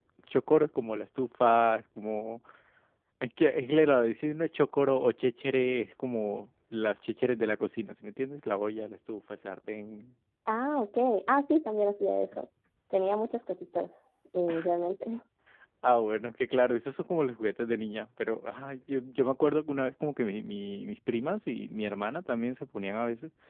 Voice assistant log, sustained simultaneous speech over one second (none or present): none